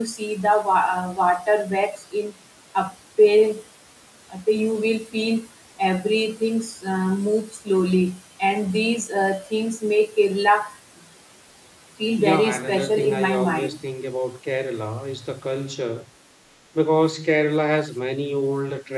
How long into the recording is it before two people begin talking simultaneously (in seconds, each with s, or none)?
12.2 s